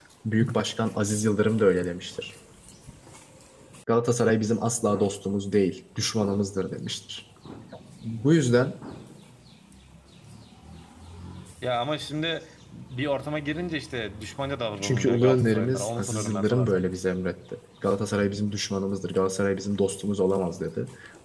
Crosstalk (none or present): present